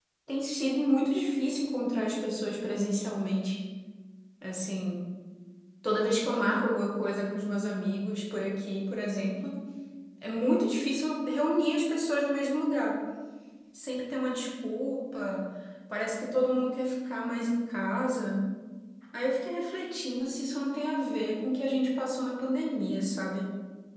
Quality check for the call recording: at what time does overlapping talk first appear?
none

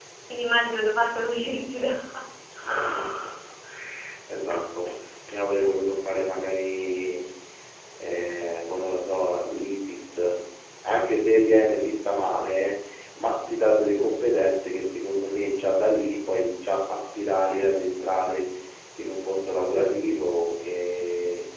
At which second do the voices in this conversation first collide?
none

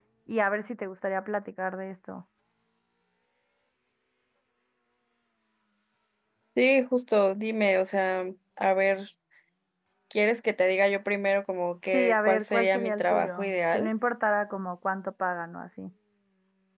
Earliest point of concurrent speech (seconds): 11.9 s

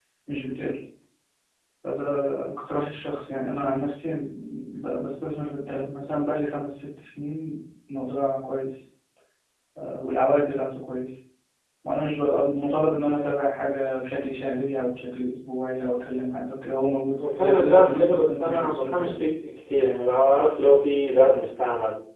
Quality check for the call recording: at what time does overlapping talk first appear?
17.2 s

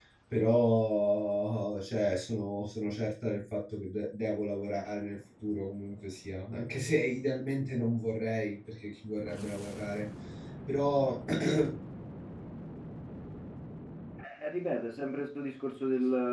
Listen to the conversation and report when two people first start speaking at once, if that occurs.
none

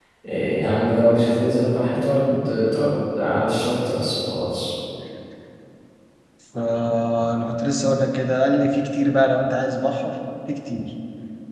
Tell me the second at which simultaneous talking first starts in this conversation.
none

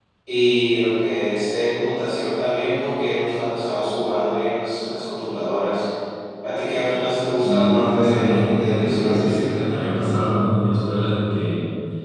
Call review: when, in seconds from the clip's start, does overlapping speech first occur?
7.4 s

